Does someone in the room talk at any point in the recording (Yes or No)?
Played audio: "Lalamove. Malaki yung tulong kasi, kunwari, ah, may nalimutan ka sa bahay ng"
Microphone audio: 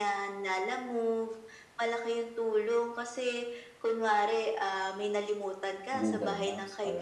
Yes